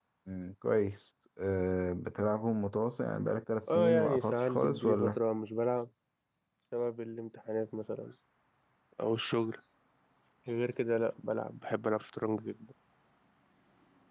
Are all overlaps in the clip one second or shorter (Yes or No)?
No